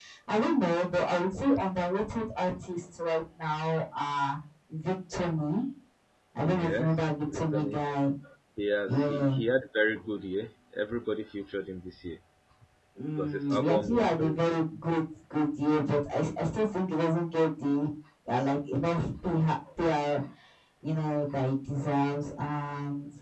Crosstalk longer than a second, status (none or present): present